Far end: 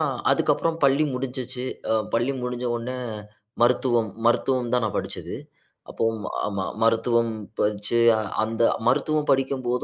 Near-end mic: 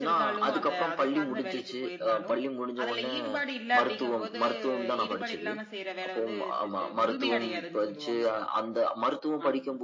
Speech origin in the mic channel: both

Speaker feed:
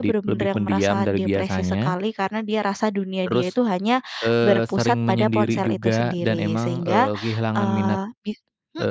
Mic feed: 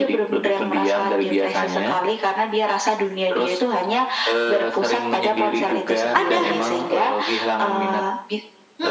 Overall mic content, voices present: both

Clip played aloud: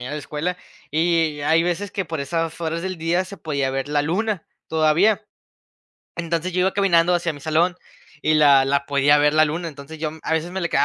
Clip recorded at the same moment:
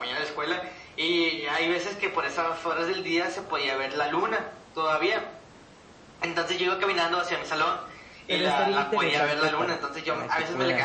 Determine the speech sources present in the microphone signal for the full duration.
both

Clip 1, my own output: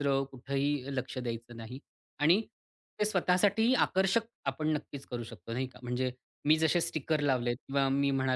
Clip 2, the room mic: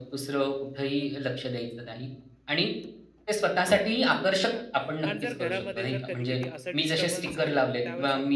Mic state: both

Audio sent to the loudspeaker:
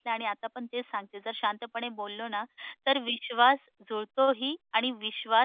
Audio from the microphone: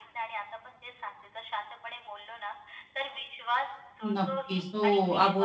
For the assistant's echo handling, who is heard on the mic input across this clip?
both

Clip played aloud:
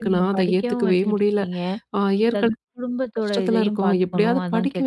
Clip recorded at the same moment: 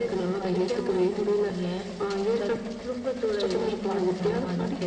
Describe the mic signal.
echo only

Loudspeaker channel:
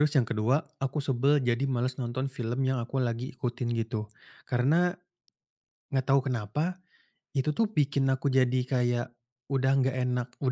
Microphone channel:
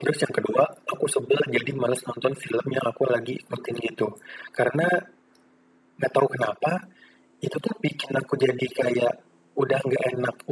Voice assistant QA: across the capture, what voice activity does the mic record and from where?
echo only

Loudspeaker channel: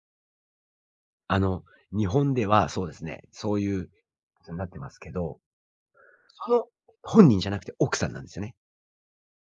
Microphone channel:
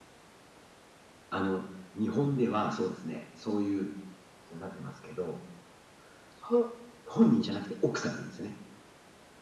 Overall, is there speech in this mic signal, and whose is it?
echo only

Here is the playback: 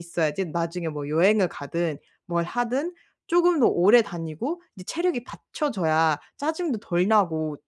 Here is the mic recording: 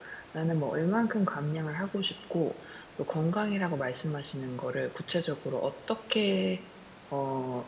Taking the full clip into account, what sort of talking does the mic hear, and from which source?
user only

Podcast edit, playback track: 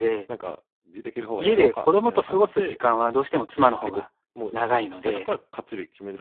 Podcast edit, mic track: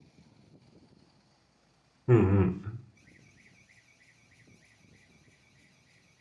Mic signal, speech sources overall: user only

